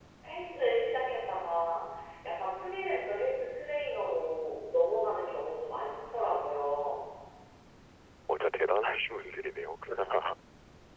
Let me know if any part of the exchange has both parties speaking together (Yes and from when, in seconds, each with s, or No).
No